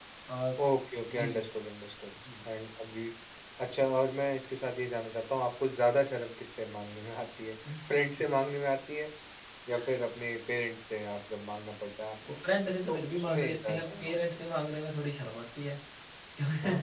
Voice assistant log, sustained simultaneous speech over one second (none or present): present